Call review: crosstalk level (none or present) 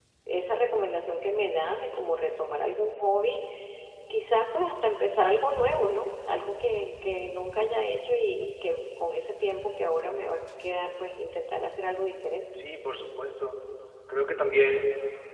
none